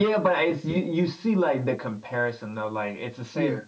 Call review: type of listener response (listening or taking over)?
listening